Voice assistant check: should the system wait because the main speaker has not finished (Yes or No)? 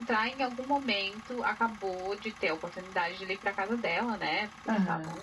Yes